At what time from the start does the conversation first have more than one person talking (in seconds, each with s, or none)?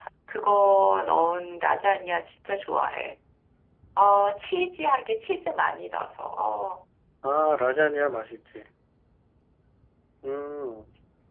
none